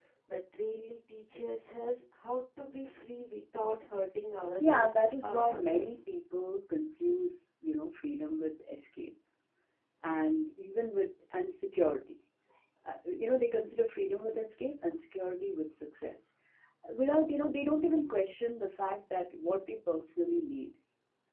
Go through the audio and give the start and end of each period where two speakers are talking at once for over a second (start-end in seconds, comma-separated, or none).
4.7-6.0